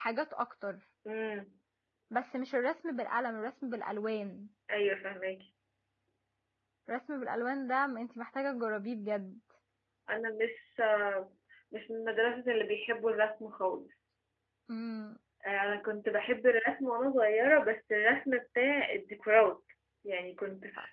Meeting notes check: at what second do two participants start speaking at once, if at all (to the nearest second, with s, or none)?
none